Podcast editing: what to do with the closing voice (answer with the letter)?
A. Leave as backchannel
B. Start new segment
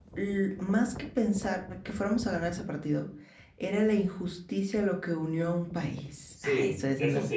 B